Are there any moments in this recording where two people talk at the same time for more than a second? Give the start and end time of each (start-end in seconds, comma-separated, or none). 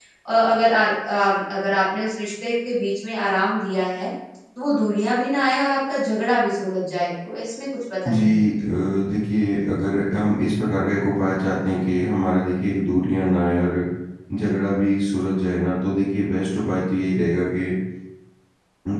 none